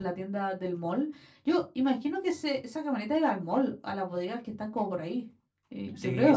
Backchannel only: No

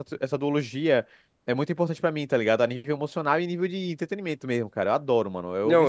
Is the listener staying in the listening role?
No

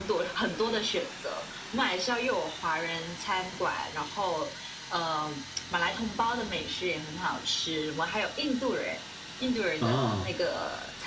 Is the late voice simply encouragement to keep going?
Yes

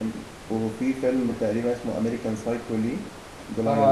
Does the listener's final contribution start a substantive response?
Yes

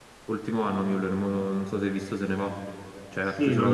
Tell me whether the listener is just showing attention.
No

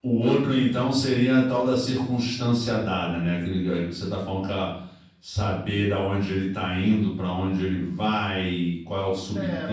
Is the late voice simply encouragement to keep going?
No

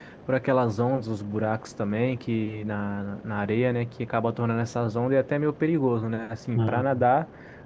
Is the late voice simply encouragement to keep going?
Yes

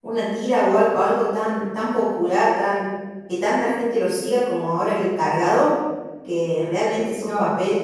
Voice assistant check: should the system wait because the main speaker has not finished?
Yes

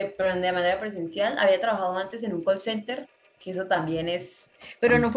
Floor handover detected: No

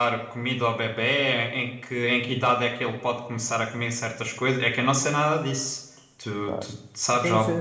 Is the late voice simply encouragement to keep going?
No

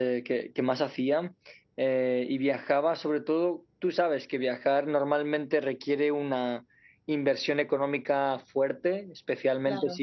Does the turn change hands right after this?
No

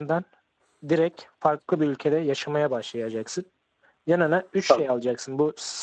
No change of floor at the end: Yes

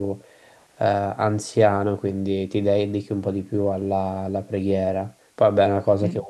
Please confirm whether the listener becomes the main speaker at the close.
No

